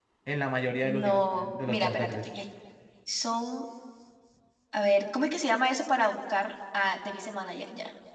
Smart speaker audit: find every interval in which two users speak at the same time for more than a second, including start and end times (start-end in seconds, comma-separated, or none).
1.0-2.3